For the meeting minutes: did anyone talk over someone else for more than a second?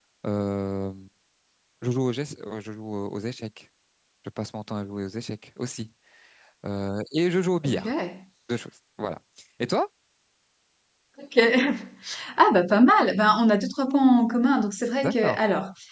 No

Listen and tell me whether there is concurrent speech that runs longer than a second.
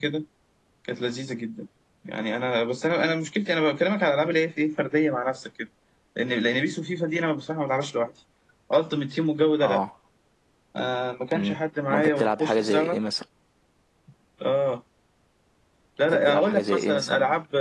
Yes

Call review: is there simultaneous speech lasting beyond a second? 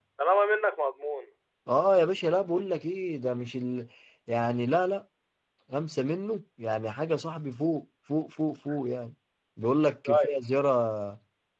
No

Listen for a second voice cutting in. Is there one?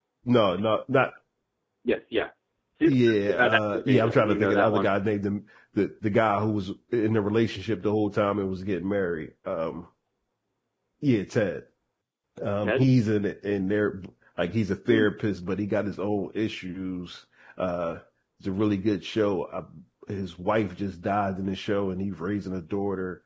Yes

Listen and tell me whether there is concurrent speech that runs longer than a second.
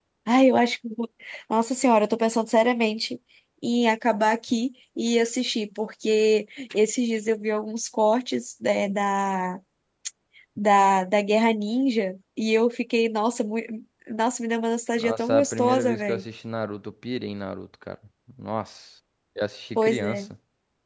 Yes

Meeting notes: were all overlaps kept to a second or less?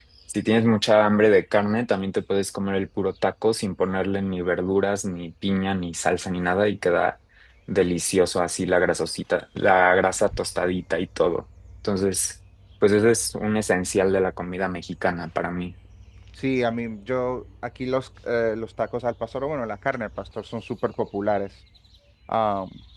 Yes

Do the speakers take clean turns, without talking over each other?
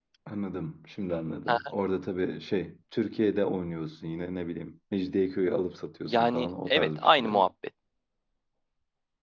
No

